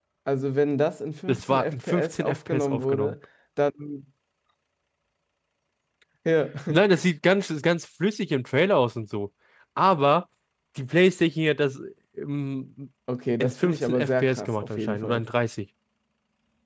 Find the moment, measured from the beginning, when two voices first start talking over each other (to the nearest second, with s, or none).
1 s